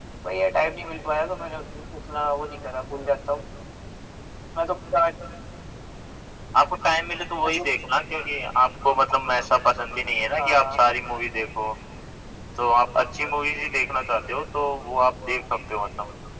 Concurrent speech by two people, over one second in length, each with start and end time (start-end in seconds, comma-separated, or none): none